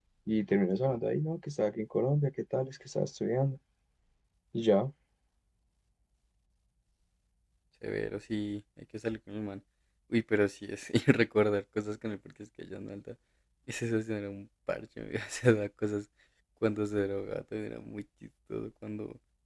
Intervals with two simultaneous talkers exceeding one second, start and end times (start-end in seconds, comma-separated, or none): none